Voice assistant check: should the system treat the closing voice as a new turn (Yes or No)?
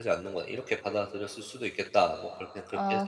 Yes